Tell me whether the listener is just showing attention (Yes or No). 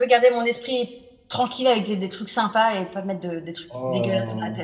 No